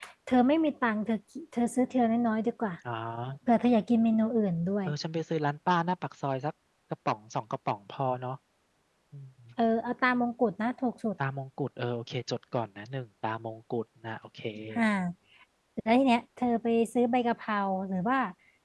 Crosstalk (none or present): none